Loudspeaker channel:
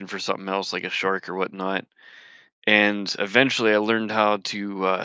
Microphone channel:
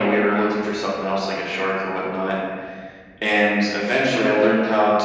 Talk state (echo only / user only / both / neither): echo only